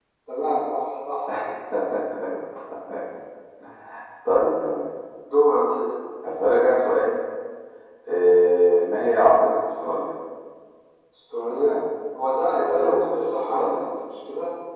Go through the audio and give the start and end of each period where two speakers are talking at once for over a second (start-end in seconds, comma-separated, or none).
12.4-14.1